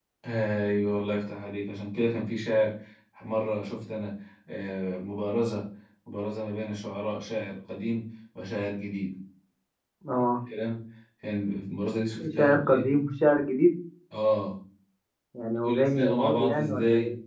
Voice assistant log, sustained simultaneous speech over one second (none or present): present